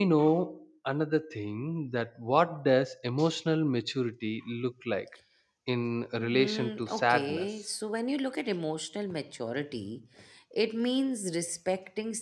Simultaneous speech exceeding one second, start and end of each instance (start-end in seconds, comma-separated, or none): 6.2-7.5